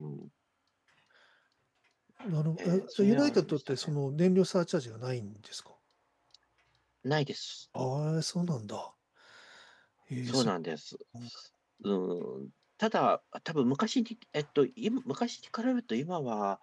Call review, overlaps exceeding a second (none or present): present